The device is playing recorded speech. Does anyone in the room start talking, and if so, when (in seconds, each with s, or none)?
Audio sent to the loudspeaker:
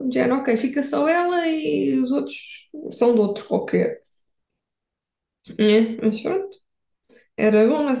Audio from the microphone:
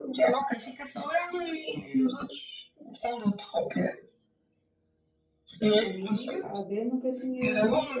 5.7 s